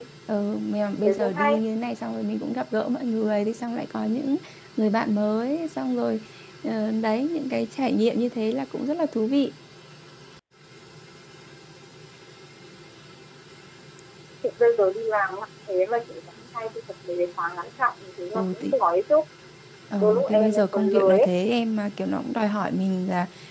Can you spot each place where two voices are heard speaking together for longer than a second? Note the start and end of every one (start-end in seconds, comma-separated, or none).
20.0-21.3